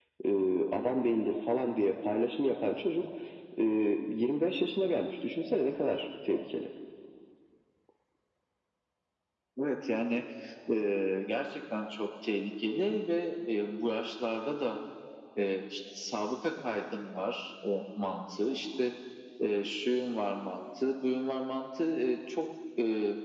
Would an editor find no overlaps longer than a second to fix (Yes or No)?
Yes